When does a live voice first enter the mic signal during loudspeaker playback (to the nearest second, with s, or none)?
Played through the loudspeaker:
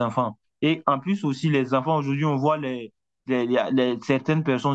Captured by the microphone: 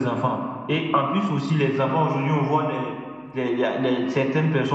none